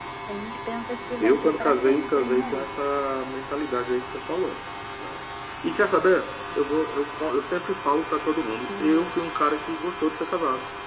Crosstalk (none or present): present